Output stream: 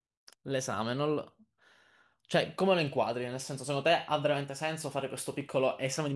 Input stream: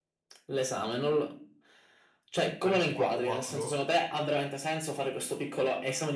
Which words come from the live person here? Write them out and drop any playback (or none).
Faresti 4-4?